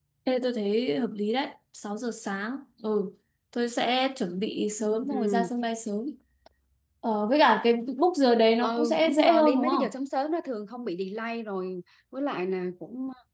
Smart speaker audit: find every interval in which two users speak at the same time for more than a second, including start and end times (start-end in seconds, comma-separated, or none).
8.6-9.9